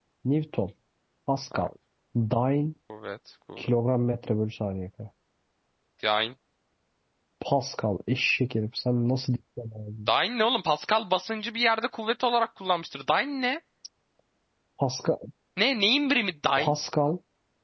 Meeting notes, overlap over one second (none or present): none